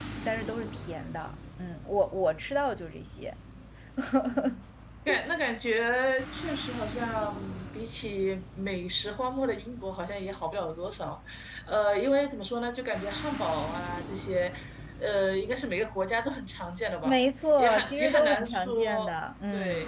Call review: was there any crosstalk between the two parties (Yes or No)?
Yes